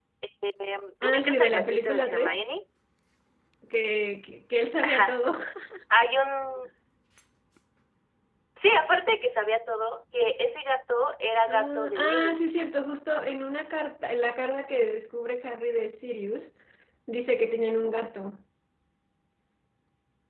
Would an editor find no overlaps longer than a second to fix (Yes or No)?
No